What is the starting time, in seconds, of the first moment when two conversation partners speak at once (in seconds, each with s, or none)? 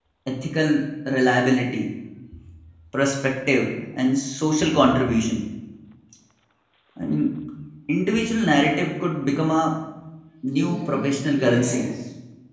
10.5 s